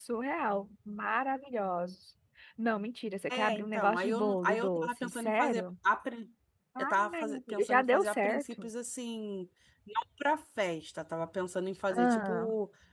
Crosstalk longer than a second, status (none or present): present